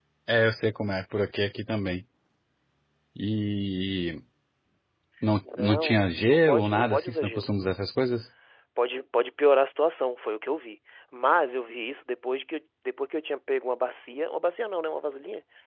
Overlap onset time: 5.6 s

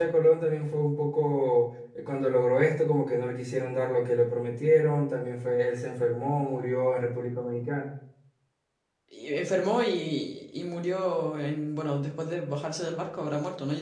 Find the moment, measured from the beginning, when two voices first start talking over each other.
none

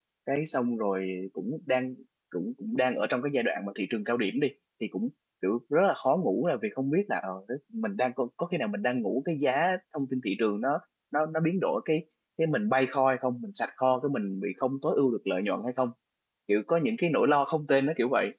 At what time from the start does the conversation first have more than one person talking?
none

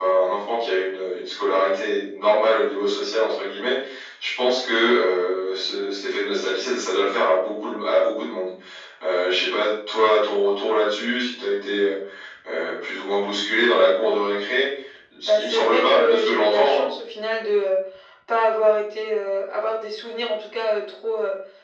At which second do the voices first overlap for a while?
15.3 s

